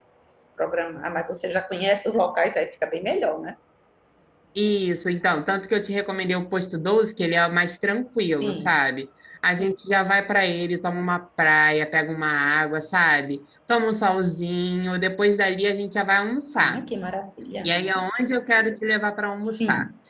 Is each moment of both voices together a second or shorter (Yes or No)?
Yes